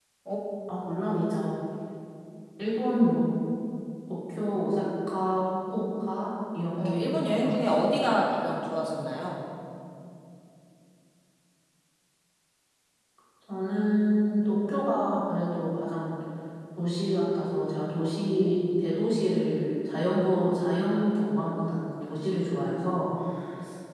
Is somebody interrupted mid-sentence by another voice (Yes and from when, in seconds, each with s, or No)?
Yes, from 6.7 s